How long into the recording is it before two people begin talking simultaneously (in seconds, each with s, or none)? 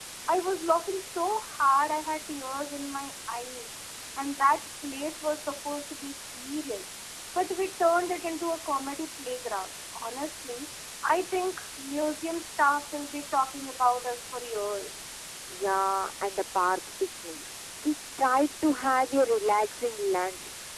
none